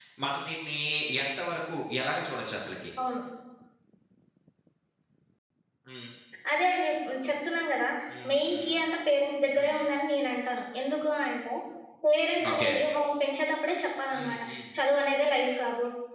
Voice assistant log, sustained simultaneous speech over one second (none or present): none